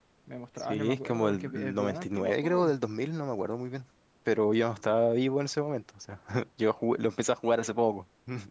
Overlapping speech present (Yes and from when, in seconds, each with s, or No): Yes, from 0.6 s